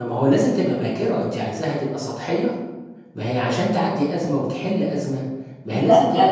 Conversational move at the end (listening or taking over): taking over